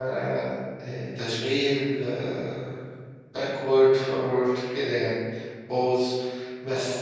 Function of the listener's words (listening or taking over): listening